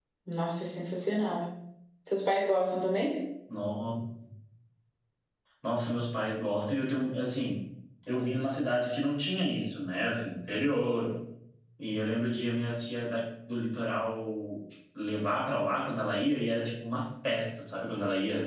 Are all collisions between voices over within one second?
Yes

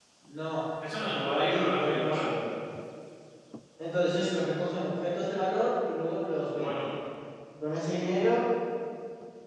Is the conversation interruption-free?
No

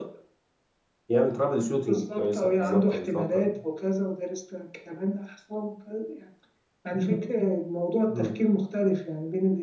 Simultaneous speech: Yes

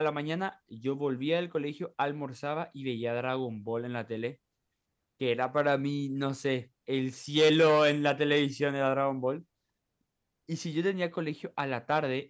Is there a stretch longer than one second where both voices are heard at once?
No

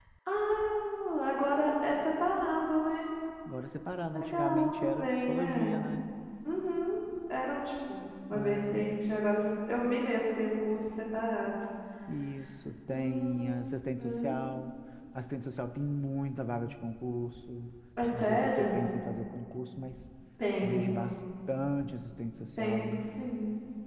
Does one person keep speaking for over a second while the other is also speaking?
Yes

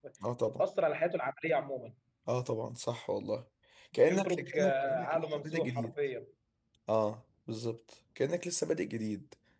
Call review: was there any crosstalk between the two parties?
Yes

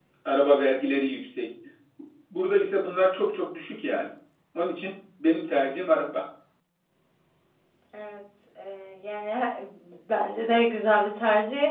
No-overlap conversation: Yes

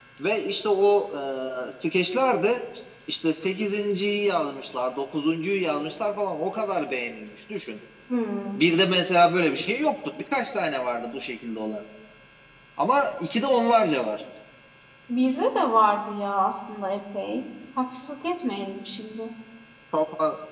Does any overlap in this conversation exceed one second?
No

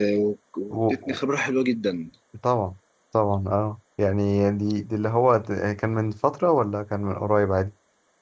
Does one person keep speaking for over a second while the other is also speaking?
No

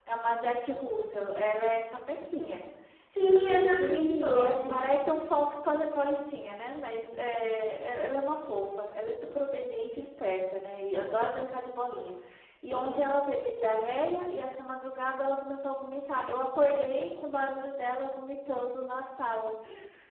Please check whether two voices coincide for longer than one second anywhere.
Yes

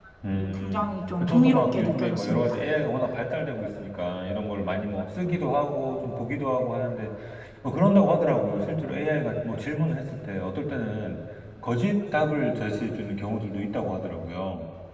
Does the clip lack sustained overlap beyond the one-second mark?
No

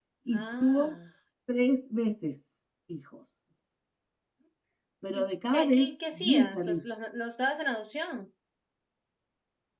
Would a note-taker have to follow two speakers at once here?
Yes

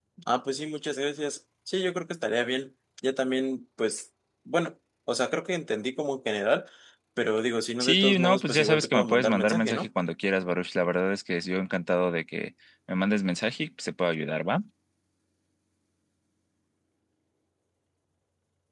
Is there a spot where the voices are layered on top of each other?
Yes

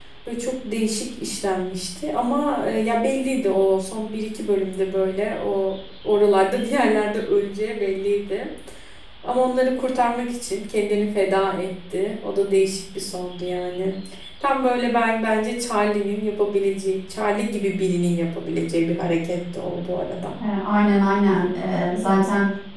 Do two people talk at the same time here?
No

